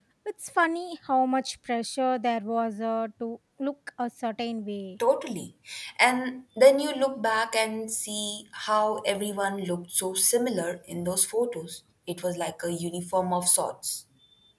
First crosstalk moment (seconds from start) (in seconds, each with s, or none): none